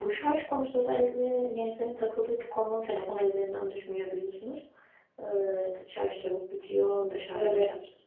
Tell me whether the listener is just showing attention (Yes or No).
Yes